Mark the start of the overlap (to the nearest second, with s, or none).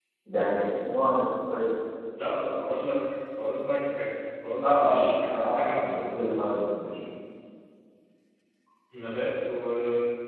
5 s